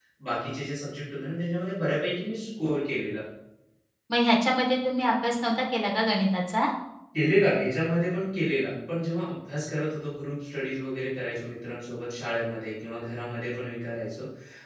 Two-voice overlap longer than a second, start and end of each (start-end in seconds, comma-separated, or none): none